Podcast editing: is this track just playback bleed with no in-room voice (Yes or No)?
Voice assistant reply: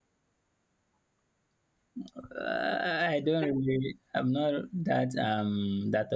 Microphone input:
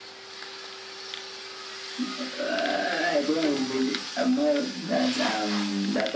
Yes